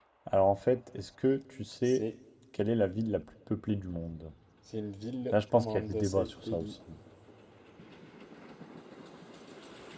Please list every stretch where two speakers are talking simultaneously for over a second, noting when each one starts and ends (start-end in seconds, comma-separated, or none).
5.3-6.7